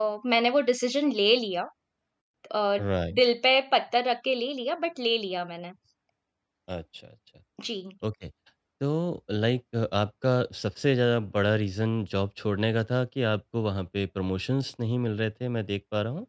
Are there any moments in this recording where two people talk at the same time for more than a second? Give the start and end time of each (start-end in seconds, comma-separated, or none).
none